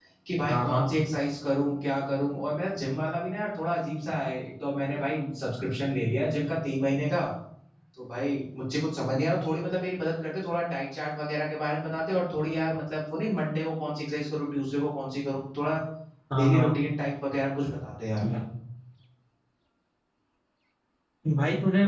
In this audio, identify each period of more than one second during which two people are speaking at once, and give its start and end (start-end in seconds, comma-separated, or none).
none